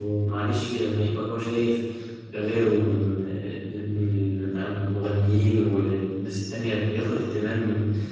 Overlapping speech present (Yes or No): No